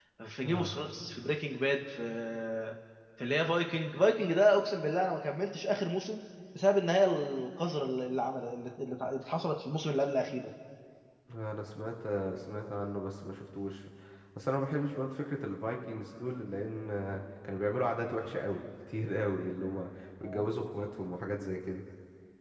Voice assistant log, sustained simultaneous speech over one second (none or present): none